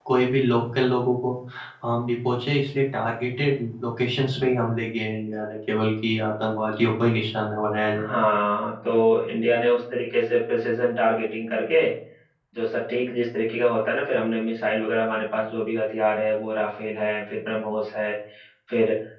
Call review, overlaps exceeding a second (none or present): none